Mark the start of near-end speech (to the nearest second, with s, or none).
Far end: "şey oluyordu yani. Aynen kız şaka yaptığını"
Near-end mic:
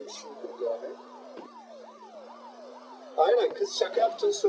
none